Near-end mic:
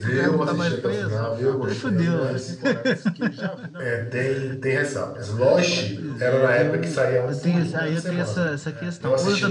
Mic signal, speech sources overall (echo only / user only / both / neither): both